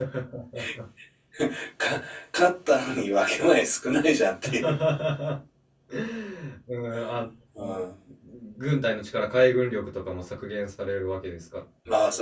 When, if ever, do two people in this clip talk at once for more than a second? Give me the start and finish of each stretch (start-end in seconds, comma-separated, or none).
none